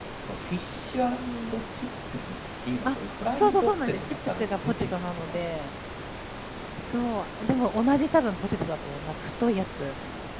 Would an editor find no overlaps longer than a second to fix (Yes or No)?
No